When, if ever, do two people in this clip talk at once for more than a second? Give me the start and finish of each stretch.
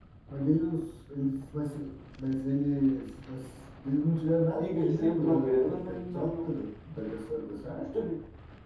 4.6-6.7

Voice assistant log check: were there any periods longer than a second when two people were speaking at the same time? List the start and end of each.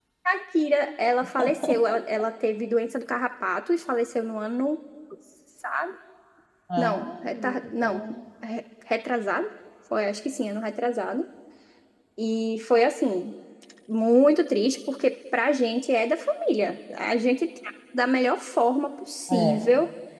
6.8-8.0

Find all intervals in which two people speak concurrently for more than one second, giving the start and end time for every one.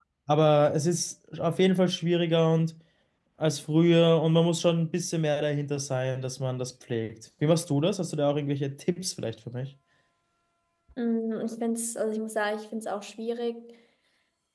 none

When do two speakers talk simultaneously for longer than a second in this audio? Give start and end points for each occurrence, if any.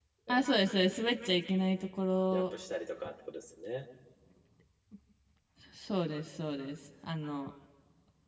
none

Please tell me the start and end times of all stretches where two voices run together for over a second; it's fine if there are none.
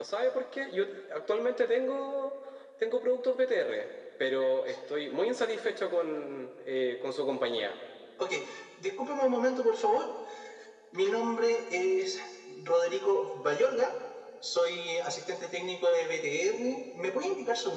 none

